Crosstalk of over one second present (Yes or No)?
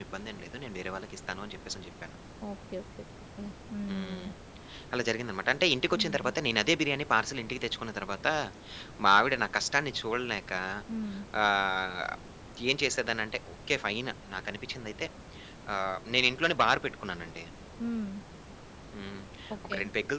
No